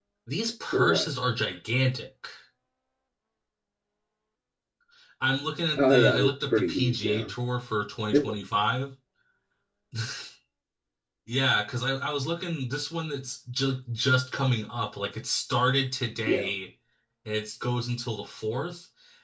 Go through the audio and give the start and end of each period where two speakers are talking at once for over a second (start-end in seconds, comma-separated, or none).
5.8-7.3